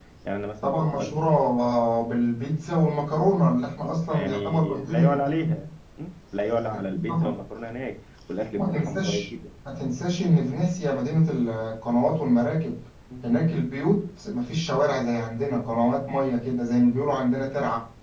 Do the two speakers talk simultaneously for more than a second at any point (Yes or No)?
Yes